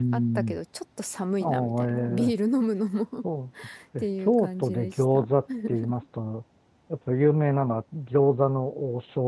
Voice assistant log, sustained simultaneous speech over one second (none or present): present